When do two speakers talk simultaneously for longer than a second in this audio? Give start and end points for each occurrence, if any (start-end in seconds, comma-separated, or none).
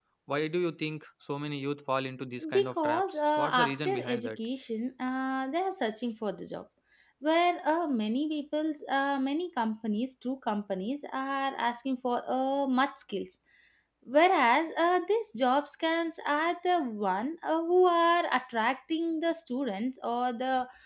2.5-4.4